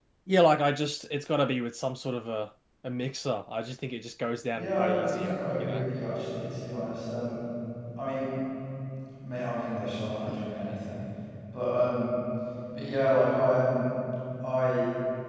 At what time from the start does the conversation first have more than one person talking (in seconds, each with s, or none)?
4.5 s